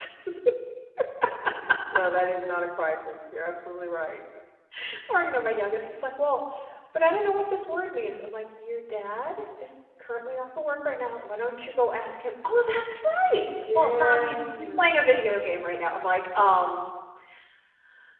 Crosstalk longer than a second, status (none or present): present